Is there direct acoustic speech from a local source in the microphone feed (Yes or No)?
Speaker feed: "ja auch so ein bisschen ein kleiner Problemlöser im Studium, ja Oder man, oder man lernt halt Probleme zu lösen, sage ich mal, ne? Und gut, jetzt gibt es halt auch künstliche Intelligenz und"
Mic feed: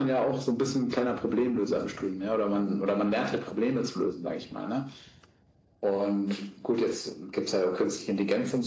No